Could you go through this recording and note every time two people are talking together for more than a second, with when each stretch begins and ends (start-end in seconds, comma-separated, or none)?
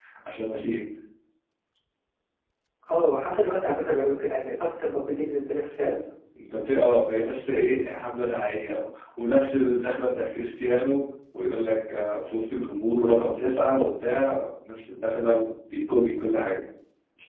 none